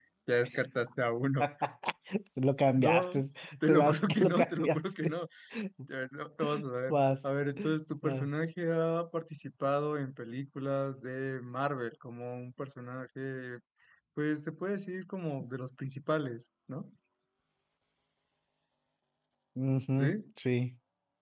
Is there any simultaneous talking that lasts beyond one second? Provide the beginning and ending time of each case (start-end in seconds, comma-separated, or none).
3.7-5.1